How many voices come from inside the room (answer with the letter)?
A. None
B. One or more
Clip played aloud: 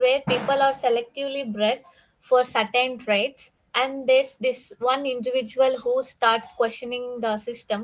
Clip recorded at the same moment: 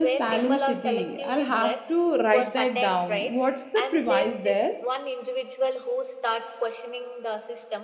B